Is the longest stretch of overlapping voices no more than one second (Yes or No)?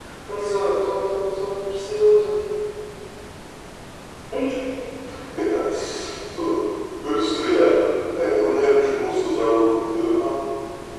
Yes